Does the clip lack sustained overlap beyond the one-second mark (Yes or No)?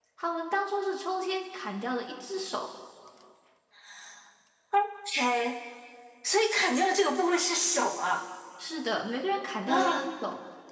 Yes